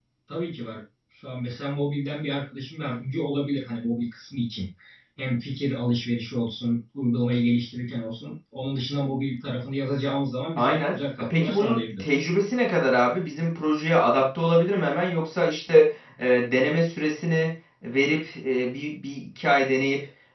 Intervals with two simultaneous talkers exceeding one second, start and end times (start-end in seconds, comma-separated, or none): 10.6-12.1